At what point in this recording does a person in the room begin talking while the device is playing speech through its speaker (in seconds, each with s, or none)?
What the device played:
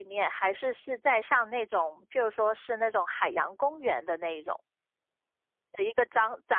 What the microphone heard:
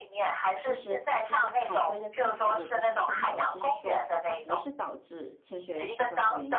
0.6 s